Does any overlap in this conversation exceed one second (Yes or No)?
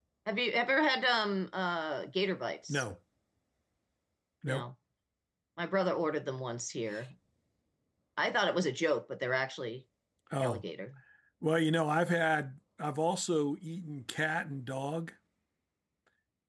No